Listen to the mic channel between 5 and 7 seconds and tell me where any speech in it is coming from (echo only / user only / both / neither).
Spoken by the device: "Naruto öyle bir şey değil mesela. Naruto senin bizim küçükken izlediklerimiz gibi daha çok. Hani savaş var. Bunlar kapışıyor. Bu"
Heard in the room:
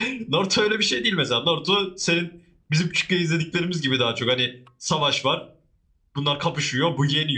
echo only